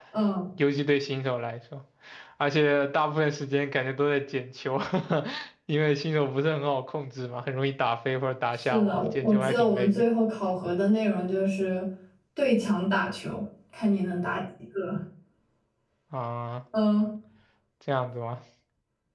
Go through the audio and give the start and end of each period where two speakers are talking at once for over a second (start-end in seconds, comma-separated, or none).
8.7-10.0